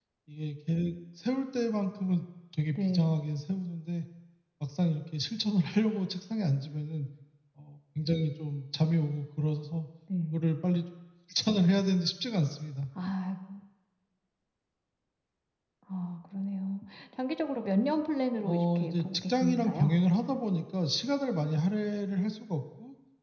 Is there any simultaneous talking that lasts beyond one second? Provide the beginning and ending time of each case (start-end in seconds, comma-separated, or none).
18.4-19.9